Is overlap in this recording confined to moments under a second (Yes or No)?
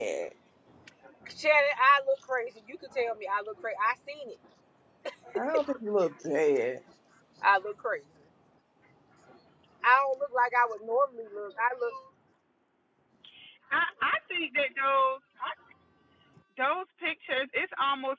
Yes